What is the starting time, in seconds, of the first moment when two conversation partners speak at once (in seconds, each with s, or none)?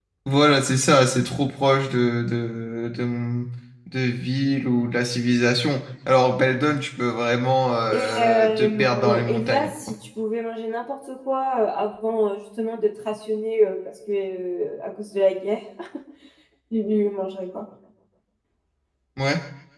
7.9 s